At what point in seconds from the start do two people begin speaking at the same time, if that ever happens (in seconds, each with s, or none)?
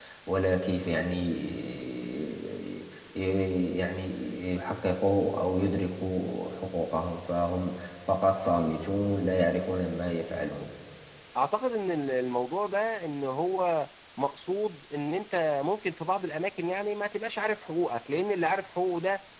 none